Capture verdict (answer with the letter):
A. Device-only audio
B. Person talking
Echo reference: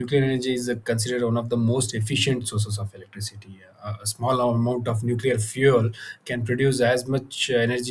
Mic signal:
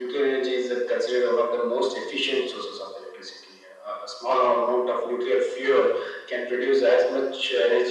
A